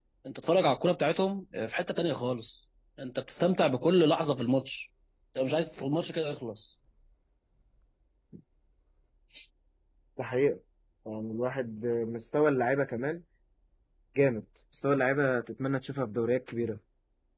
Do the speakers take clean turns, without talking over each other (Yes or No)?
Yes